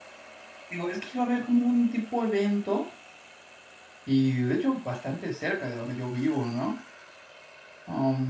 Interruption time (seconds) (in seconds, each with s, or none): none